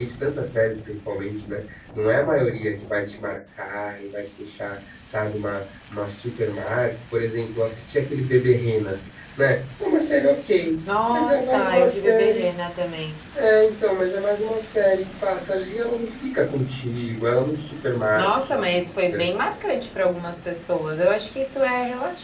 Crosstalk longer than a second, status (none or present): present